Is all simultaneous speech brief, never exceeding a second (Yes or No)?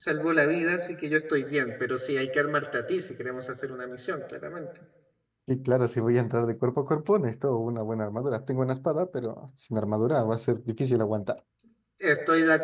Yes